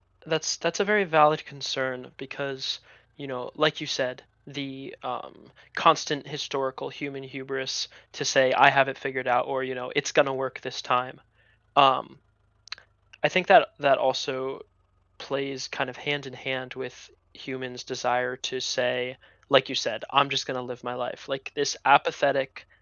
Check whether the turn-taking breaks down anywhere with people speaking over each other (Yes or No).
No